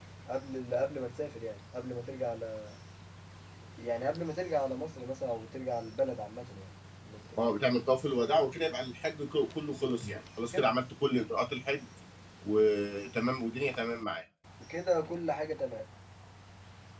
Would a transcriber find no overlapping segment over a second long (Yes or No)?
Yes